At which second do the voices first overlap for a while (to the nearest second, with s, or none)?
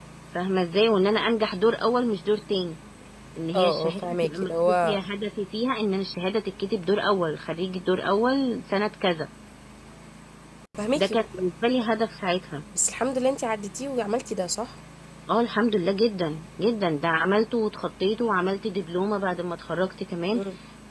4 s